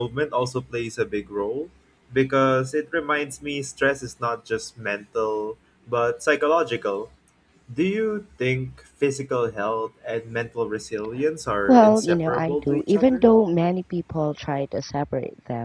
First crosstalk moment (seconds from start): 11.7 s

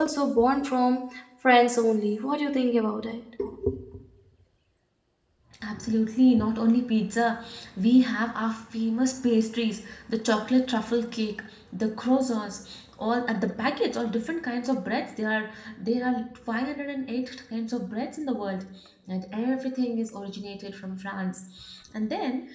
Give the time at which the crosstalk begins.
none

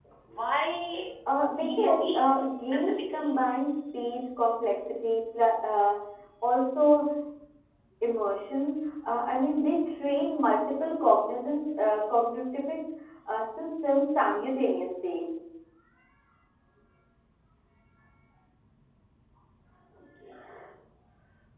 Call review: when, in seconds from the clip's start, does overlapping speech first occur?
1.3 s

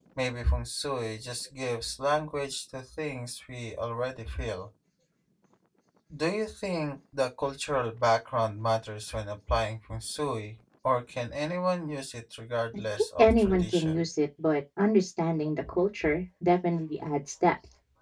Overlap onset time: 12.7 s

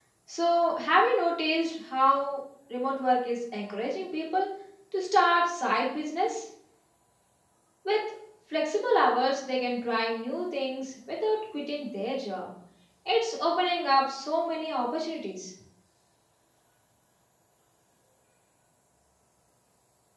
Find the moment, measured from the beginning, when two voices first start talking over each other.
none

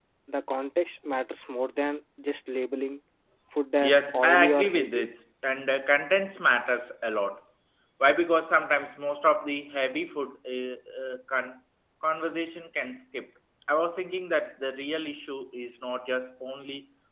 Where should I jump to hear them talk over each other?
3.8 s

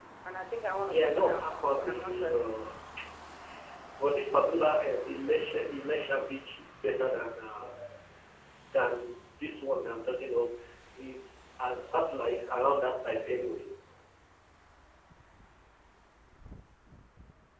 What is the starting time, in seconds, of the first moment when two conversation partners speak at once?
0.9 s

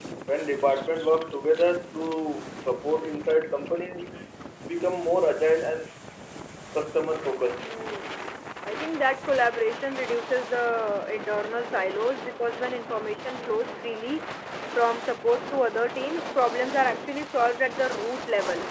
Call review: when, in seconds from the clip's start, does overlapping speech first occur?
none

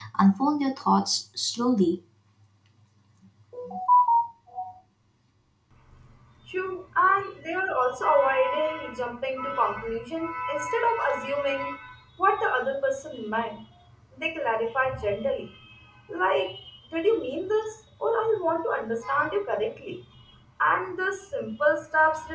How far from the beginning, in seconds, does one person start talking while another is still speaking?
none

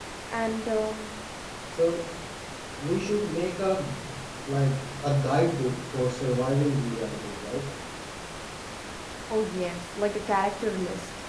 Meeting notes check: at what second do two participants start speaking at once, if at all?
none

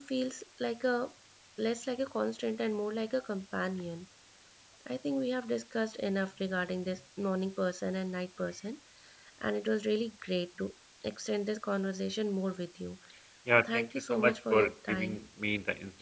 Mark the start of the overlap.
13.6 s

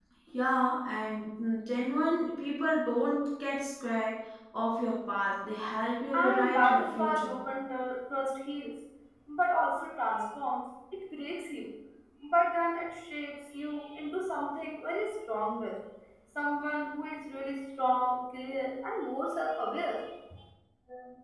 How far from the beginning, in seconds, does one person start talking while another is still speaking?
6.1 s

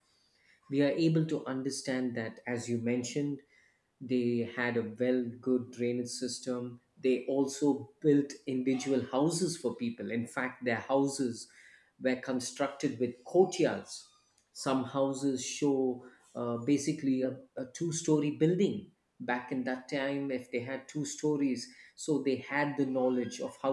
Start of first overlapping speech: none

